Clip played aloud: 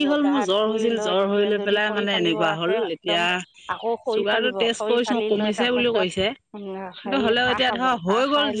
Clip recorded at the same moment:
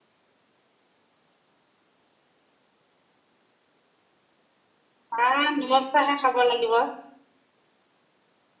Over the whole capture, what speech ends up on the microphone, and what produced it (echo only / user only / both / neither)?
user only